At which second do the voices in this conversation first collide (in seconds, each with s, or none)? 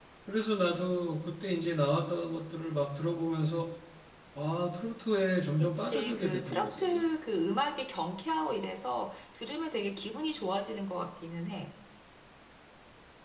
5.6 s